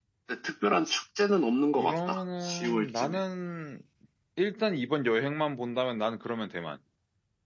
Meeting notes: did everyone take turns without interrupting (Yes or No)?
No